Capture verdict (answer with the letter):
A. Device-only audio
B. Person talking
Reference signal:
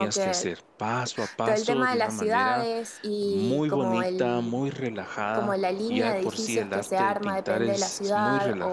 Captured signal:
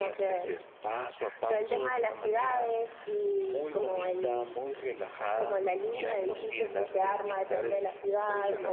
A